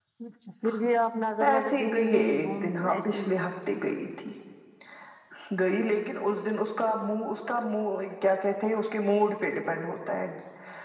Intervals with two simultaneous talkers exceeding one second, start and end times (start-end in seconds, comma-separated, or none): 1.5-3.2